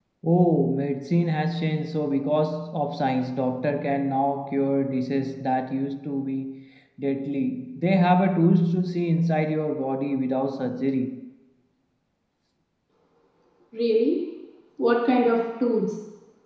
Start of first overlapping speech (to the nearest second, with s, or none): none